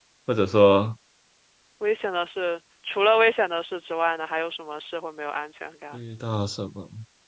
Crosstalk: none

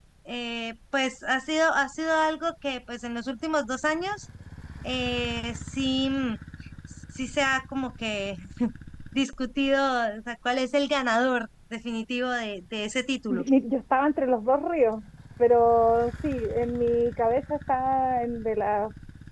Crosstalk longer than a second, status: none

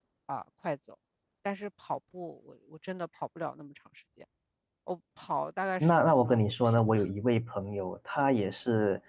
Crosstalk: present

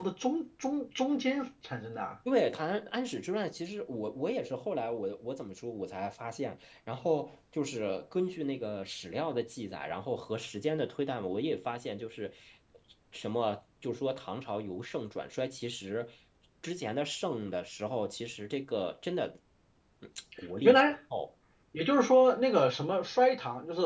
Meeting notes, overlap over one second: none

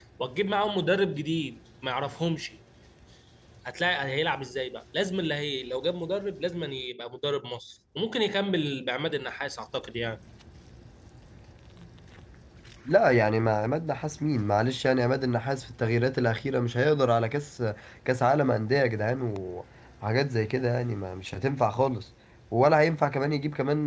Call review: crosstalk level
none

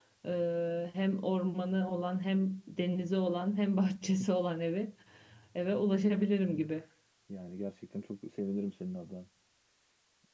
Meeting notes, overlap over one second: none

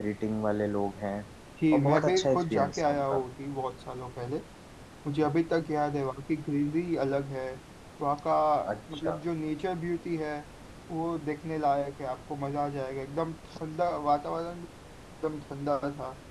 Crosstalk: present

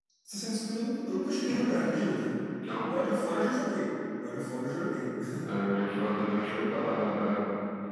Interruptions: none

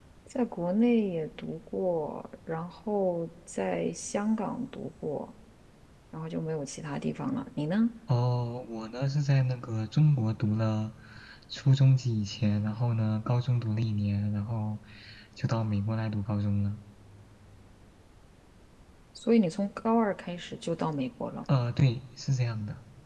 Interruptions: none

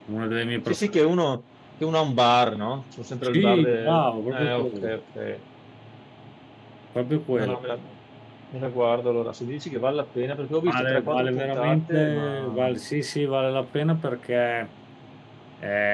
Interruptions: present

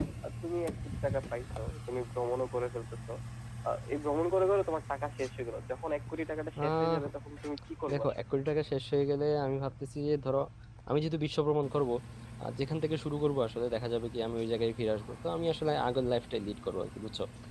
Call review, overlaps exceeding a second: none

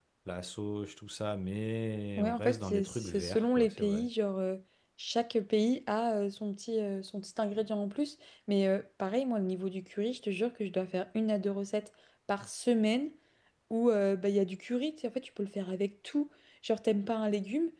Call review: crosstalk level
present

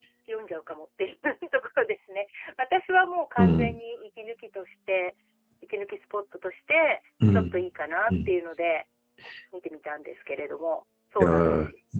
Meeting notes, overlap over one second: none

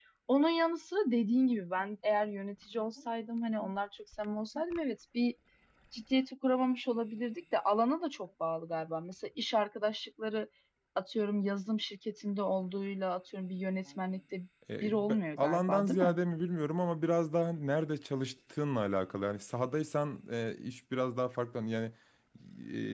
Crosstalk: present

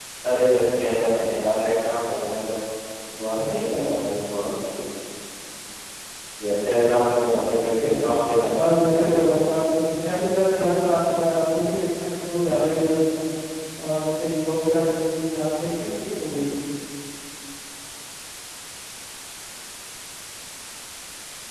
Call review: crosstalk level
present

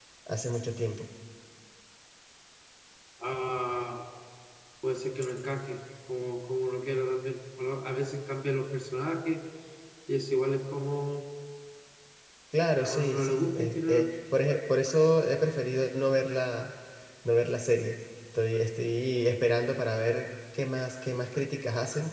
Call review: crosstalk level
present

